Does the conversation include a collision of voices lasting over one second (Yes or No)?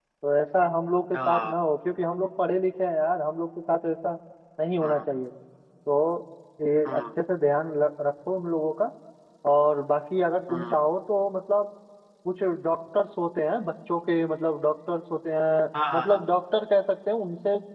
No